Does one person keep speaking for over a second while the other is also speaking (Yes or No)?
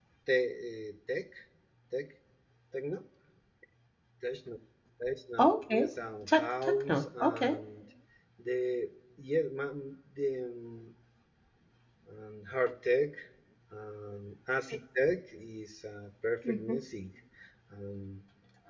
Yes